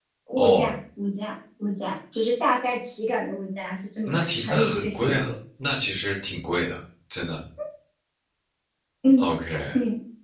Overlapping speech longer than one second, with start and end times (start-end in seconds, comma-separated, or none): 4.1-5.3